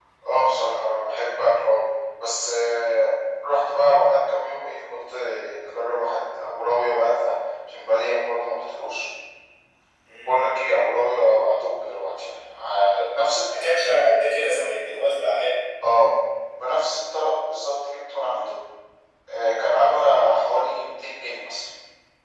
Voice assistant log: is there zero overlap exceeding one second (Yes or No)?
Yes